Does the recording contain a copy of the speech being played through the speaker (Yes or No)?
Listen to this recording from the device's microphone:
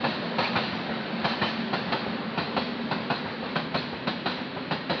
No